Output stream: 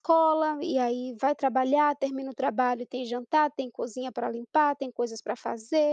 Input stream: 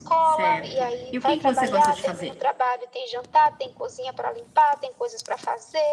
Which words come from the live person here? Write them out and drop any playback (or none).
Certo. E o que que você gosta de fazer?